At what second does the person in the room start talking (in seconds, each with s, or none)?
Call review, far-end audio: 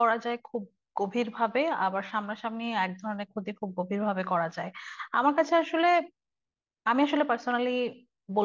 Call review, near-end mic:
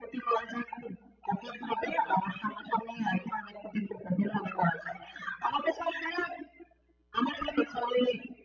none